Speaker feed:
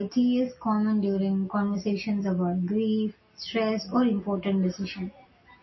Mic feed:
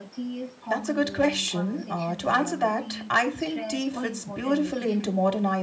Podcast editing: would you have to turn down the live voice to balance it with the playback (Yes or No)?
Yes